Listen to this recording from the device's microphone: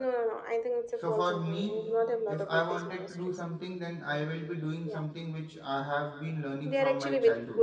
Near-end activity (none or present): present